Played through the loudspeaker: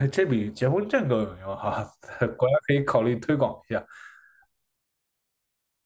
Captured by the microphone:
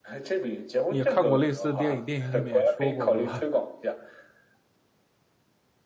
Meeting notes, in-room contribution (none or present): present